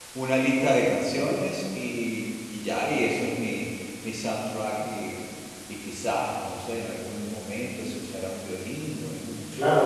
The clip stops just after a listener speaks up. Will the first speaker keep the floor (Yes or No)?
No